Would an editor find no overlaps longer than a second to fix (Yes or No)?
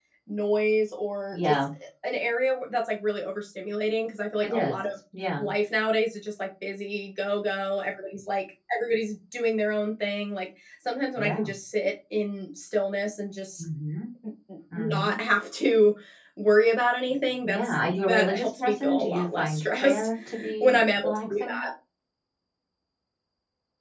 No